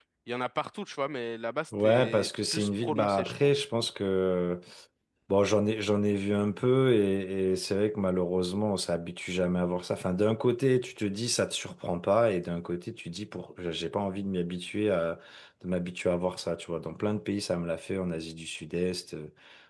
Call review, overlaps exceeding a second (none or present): present